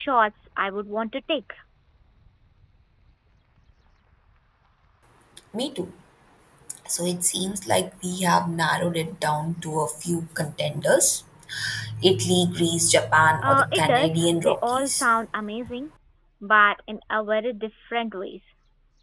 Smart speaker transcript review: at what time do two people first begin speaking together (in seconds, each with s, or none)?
13.4 s